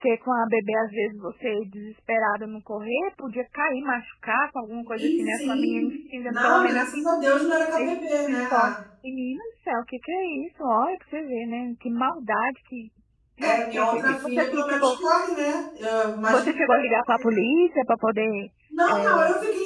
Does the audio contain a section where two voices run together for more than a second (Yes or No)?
Yes